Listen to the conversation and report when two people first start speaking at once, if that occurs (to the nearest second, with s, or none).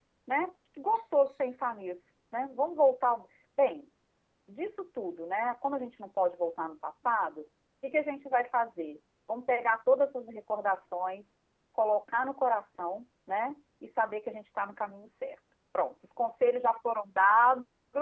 none